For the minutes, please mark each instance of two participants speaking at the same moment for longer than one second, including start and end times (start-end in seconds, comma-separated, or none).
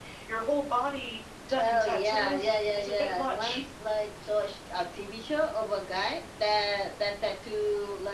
1.6-3.6